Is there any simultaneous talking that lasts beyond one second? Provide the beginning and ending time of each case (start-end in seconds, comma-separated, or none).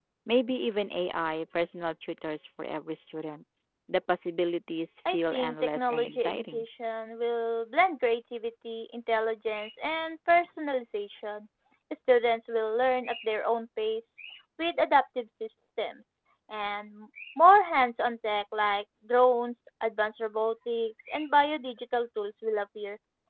5.1-6.6